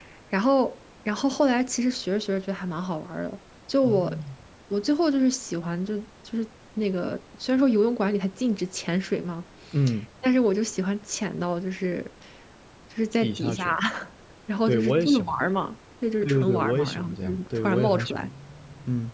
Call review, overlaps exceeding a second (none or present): present